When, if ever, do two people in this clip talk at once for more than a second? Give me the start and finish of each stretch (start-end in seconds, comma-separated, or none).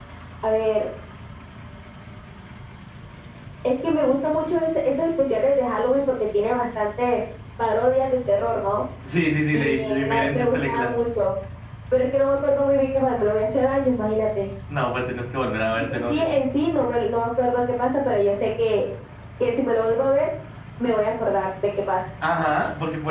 9.5-10.9